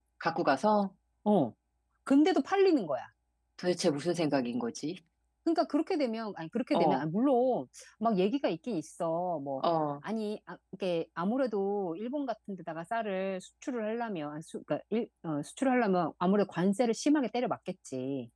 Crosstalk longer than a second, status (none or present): none